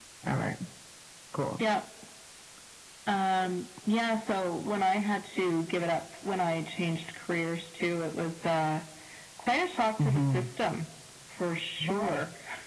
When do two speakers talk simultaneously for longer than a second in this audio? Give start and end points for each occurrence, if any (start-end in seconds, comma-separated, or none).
none